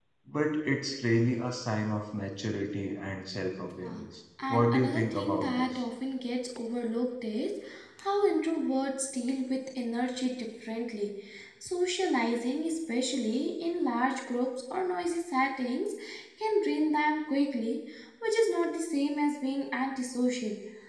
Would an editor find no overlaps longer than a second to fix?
No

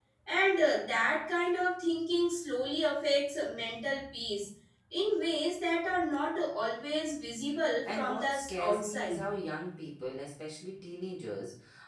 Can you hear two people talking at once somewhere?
Yes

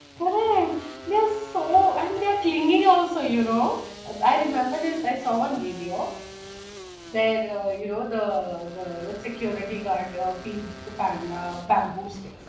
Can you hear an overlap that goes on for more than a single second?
No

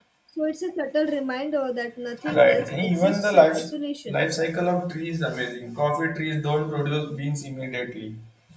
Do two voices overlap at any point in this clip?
Yes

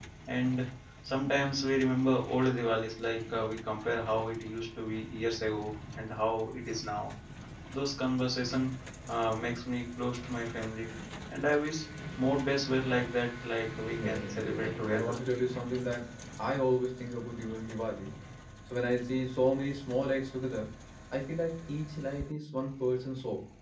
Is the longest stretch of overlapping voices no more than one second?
No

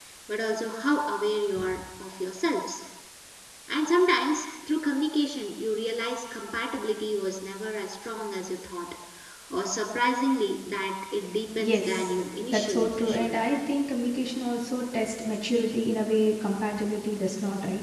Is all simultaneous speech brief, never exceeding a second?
No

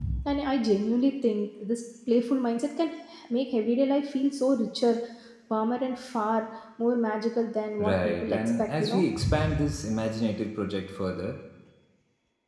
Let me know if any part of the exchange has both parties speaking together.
Yes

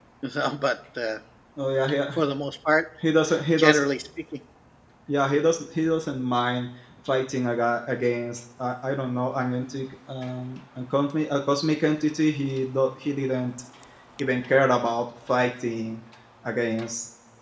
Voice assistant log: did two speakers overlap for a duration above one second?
No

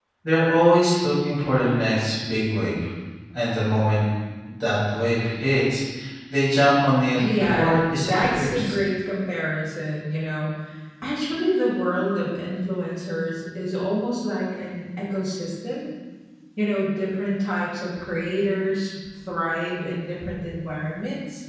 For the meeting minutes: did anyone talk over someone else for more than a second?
Yes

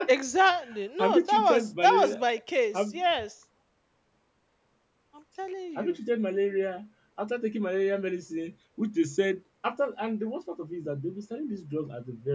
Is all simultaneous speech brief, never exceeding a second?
No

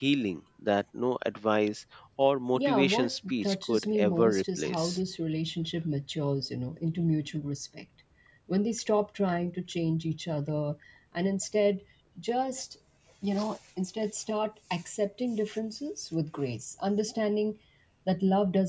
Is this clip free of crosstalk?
No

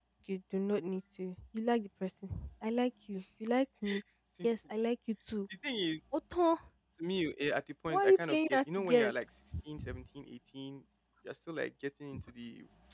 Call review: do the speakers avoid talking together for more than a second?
No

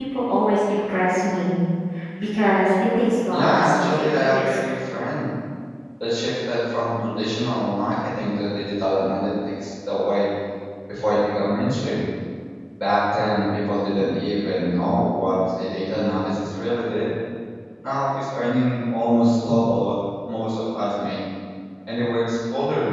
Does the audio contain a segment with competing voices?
Yes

